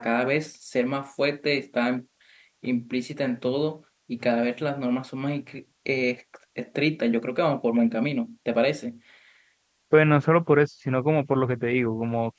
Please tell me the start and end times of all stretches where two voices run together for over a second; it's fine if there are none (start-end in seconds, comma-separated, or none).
none